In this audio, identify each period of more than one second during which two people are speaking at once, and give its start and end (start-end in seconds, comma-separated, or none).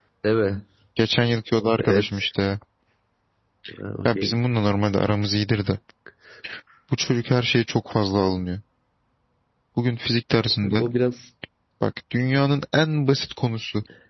none